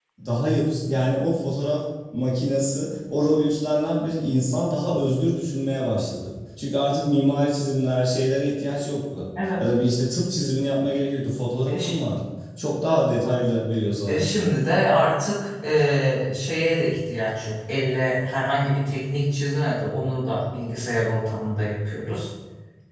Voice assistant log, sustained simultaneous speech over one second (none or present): none